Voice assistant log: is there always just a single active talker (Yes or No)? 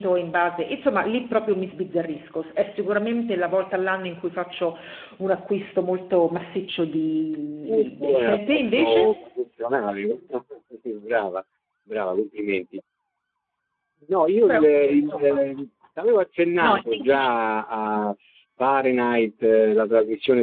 No